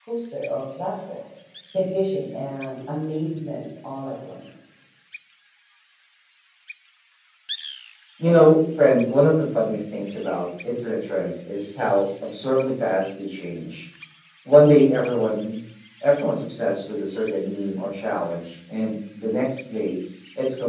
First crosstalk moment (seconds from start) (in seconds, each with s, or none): none